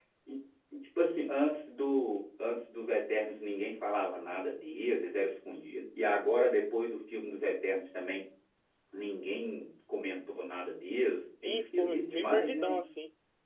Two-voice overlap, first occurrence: 11 s

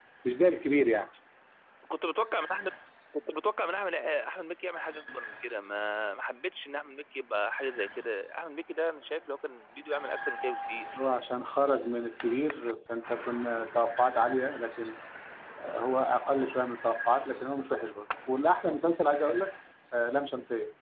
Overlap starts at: none

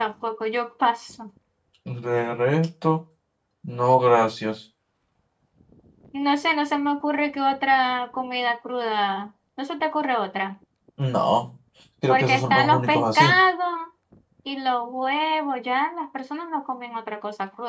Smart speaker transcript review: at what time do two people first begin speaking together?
12 s

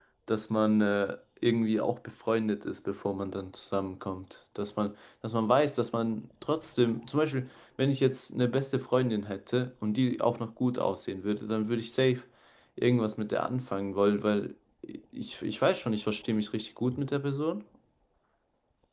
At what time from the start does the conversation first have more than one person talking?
none

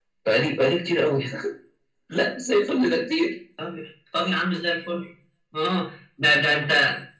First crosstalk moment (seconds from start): none

